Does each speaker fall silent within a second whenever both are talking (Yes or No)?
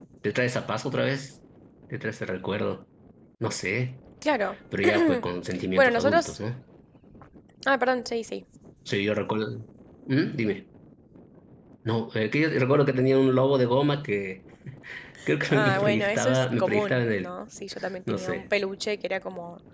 No